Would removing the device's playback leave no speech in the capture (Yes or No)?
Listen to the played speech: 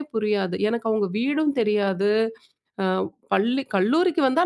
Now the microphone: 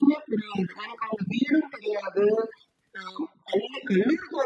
Yes